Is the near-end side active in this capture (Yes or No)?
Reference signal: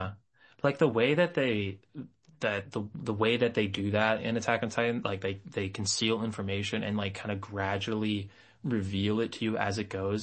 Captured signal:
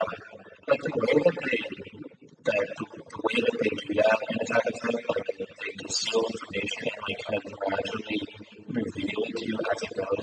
No